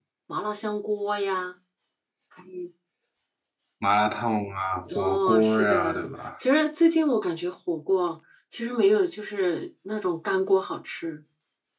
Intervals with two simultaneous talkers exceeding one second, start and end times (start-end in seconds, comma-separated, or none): 4.9-6.1